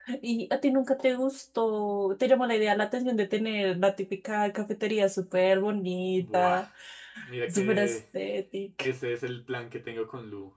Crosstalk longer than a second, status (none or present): none